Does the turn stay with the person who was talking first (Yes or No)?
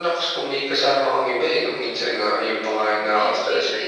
No